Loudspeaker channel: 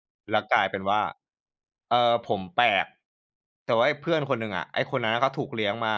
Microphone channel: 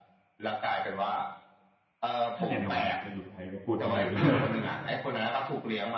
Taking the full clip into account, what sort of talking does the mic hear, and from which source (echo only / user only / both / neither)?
both